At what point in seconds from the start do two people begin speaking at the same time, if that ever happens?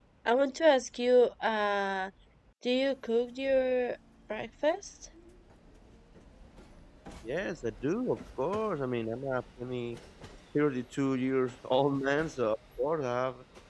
none

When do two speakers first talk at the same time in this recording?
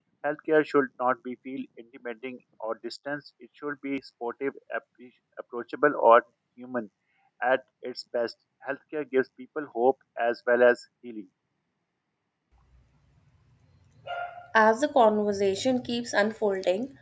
none

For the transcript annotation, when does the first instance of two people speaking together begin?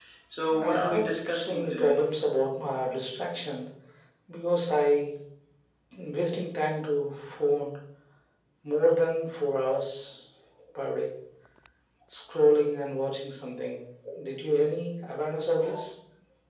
0.6 s

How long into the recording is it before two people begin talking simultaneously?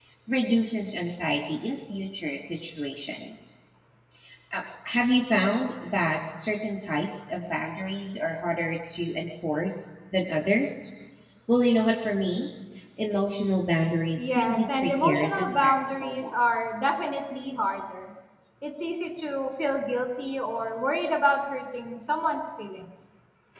14.2 s

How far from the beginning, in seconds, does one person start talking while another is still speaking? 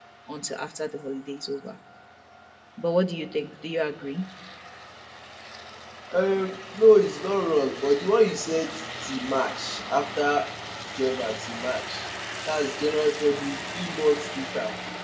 none

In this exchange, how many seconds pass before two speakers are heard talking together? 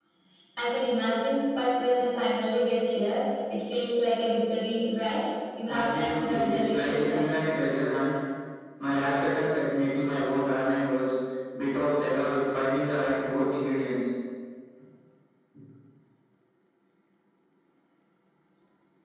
5.7 s

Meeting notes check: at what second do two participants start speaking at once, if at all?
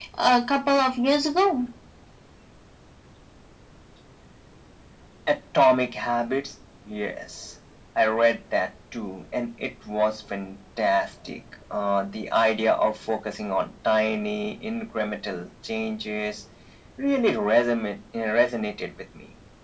none

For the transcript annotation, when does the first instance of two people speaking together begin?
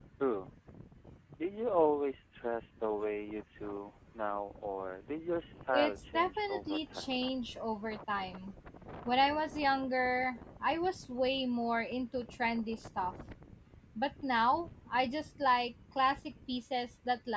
5.7 s

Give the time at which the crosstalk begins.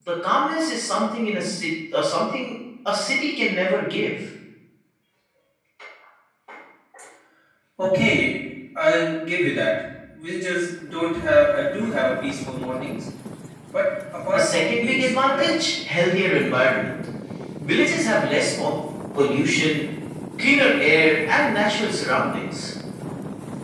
14.3 s

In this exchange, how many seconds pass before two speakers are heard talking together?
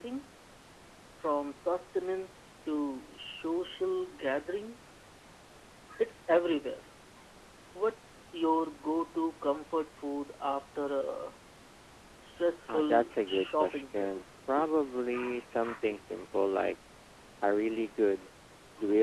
12.7 s

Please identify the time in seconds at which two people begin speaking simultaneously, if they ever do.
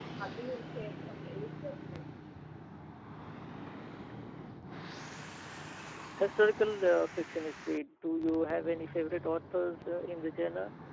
none

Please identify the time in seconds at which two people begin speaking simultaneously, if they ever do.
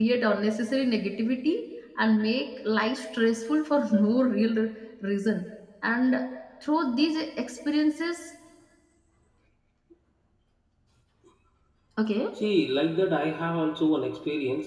none

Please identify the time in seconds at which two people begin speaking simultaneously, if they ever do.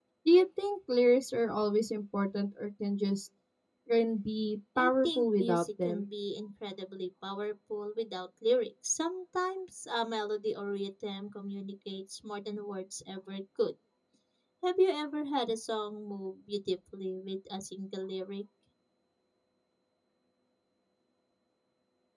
4.8 s

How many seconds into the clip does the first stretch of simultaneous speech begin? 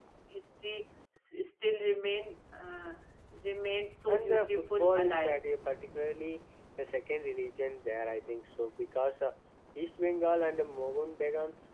4.1 s

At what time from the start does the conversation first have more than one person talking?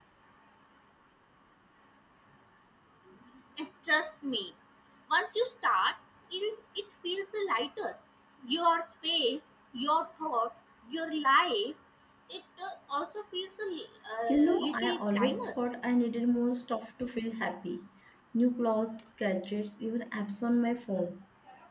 14.3 s

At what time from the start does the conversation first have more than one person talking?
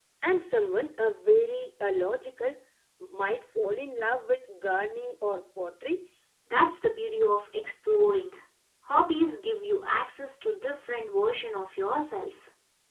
none

